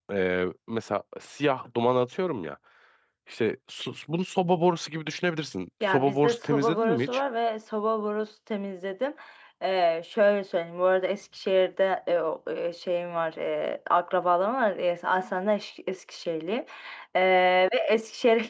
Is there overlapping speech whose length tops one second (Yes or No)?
Yes